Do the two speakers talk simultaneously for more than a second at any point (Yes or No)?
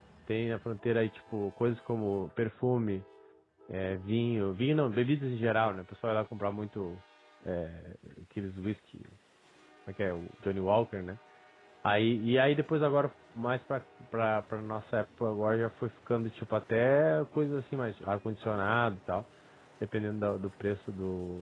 No